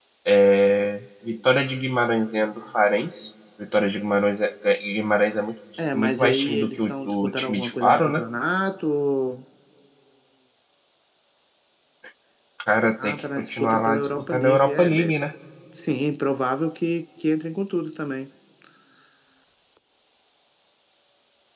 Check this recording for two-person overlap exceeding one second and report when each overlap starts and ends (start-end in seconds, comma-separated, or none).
5.9-8.2, 13.0-15.2